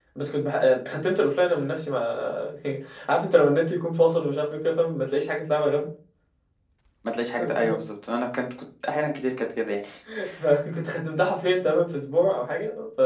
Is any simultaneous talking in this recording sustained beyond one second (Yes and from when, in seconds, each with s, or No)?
No